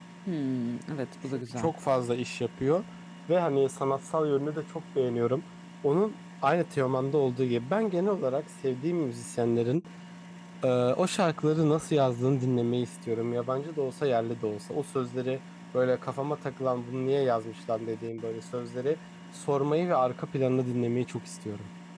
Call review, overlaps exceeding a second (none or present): none